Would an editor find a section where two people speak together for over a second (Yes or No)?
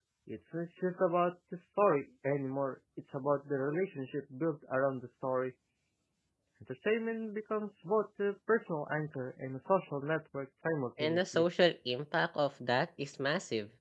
No